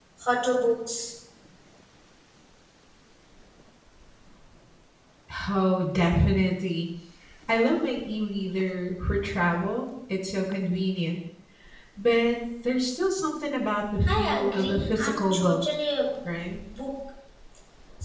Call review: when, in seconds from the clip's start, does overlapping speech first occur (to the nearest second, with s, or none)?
14 s